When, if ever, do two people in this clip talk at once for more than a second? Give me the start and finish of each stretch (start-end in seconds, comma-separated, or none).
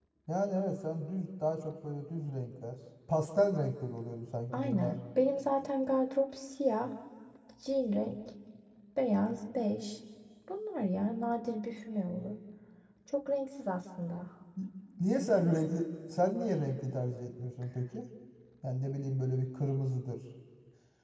none